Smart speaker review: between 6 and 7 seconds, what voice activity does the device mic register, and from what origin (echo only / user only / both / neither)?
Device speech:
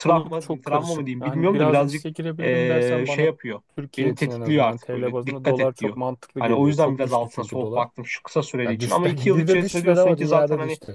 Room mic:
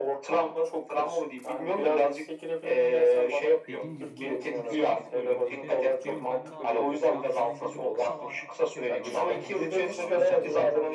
both